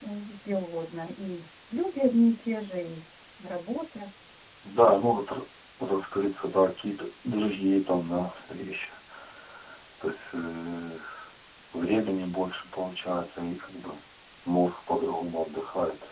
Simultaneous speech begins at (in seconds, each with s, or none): none